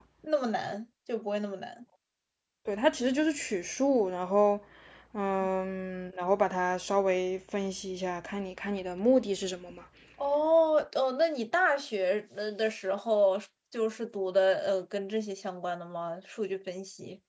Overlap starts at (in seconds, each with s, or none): none